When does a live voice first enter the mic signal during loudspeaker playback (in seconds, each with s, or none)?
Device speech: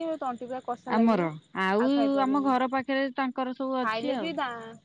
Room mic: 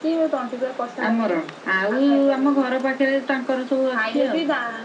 none